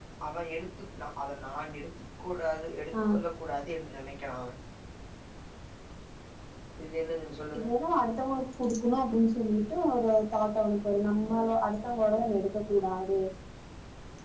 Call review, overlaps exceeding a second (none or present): none